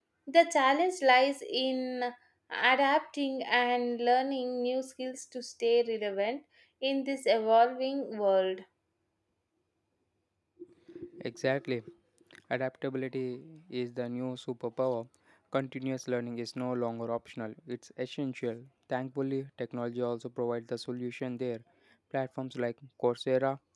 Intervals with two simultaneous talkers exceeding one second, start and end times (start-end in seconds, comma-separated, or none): none